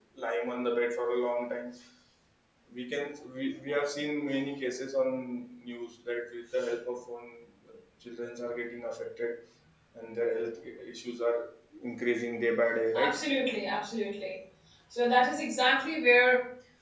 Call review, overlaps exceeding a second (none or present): none